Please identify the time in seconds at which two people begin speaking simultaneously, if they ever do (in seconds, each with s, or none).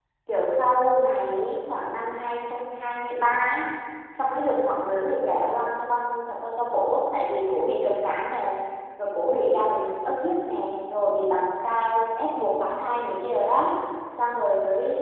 none